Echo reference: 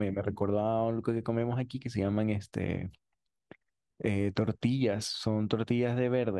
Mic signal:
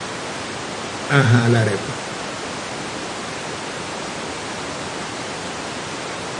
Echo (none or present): none